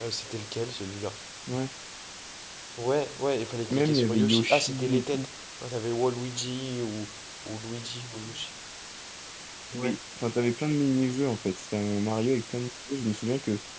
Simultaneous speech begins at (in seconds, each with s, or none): 3.7 s